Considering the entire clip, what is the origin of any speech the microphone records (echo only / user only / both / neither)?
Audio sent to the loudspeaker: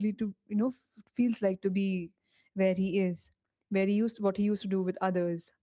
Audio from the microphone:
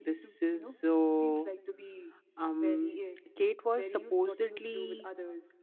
both